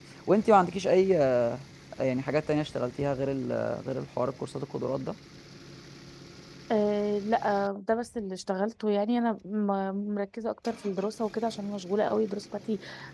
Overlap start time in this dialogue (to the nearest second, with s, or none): none